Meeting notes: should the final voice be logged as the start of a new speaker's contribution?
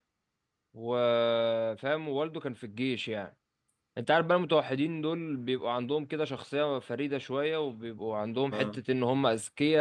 No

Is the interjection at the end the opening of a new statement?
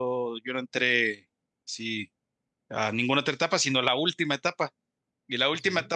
No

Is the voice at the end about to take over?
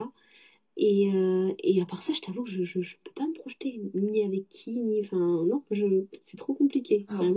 Yes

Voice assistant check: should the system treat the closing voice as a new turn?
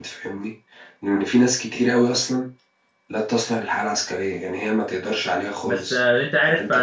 Yes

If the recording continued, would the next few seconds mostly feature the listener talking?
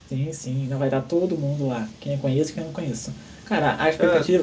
No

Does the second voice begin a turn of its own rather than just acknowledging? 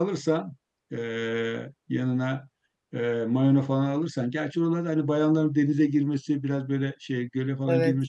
No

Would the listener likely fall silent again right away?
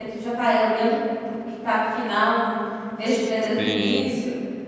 No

